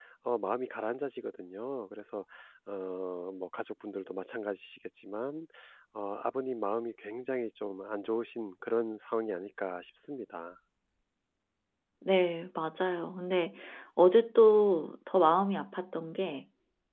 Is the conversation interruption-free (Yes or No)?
Yes